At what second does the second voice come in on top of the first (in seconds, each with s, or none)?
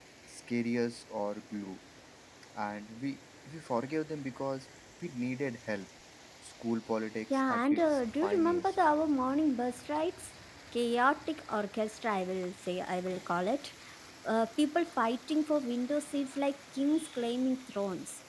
7.3 s